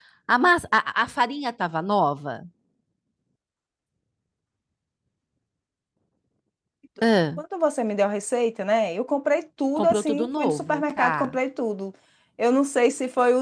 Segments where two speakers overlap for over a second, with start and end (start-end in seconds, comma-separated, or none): 9.8-11.4